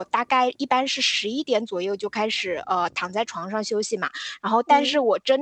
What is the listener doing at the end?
listening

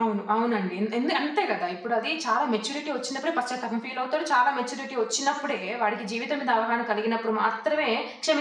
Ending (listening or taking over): taking over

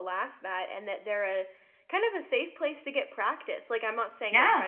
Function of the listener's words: listening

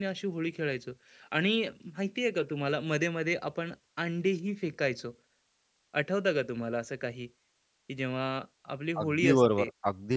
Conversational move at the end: taking over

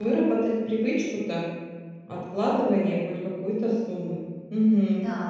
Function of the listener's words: taking over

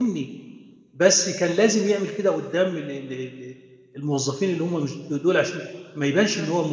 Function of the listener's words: listening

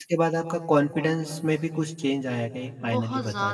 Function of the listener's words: taking over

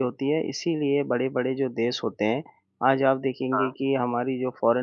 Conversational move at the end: listening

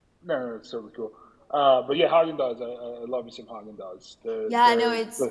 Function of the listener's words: taking over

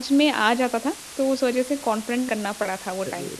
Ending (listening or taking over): taking over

